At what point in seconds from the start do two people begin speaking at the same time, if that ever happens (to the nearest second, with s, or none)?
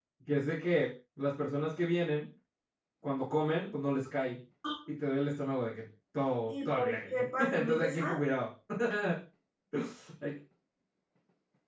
6 s